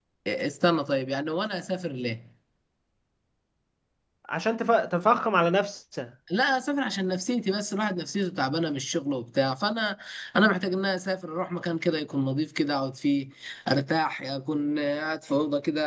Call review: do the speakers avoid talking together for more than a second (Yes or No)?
Yes